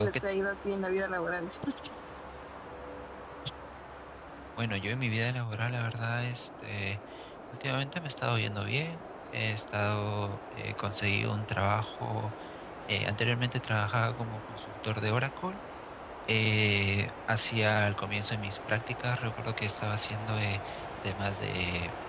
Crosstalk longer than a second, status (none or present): none